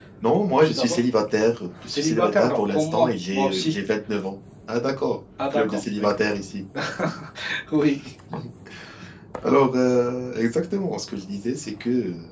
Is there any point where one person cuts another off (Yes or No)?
Yes